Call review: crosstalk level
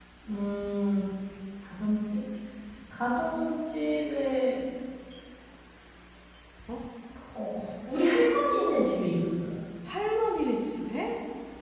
none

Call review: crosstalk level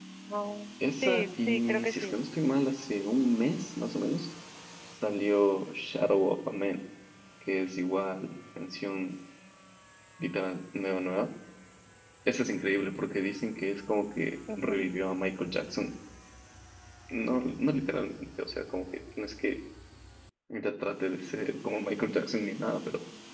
present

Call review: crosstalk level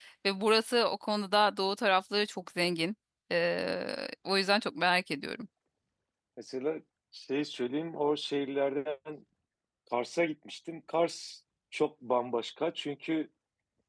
none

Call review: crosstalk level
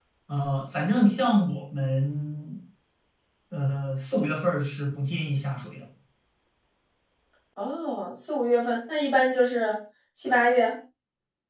none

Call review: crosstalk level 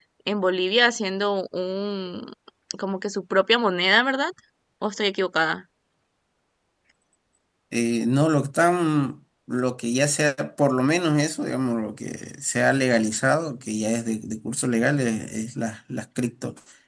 none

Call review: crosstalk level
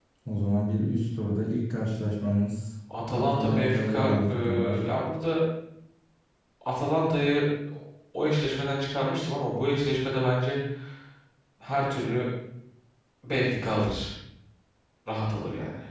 present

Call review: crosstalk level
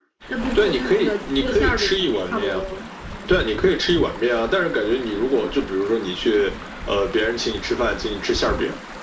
present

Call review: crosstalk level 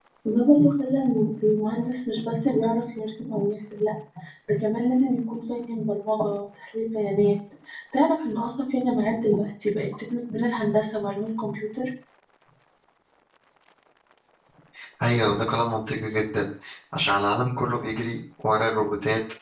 none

